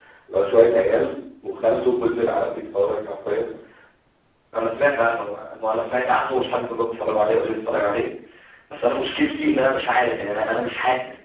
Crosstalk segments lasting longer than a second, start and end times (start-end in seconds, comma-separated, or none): none